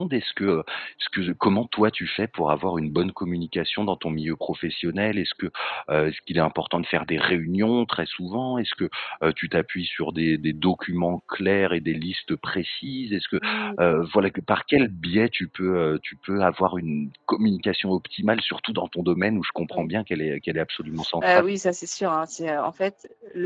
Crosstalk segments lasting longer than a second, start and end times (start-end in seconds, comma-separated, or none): none